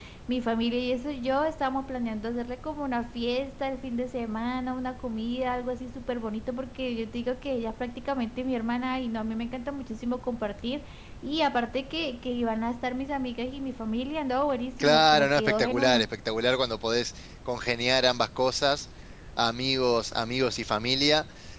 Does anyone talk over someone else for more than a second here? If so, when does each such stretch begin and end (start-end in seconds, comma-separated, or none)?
14.8-16.1